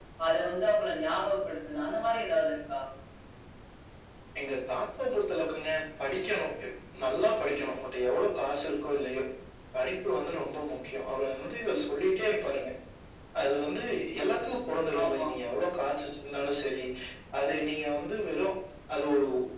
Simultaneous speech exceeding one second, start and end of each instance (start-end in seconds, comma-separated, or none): none